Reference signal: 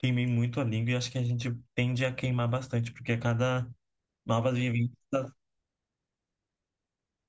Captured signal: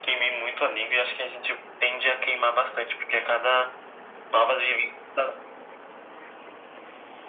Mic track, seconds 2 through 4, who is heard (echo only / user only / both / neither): echo only